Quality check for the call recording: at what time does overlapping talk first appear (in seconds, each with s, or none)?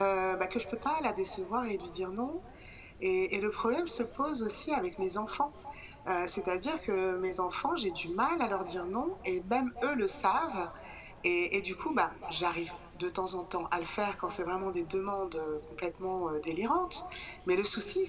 none